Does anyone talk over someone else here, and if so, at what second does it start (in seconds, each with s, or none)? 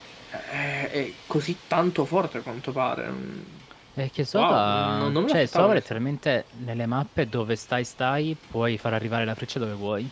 4.3 s